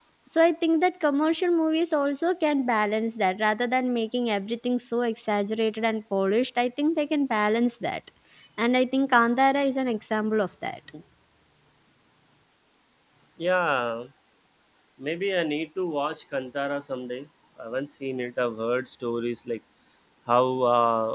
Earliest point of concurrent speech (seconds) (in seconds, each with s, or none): none